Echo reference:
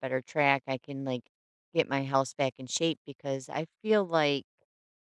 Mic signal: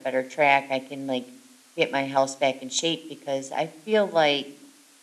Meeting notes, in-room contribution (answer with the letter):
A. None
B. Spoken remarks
A